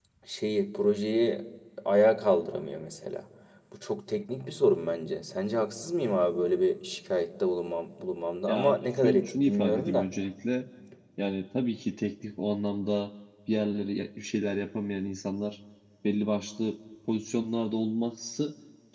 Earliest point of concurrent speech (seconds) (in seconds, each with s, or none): 8.5 s